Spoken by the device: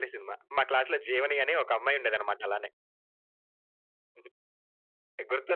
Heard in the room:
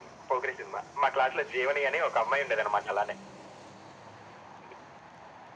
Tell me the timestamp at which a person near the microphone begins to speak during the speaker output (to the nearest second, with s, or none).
none